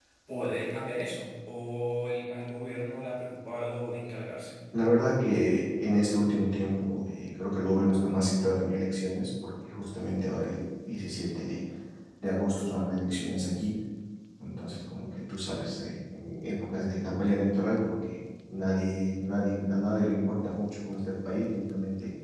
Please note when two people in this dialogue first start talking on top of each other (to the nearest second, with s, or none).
none